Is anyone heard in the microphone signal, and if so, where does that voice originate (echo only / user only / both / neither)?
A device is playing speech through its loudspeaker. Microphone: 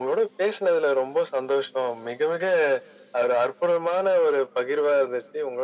echo only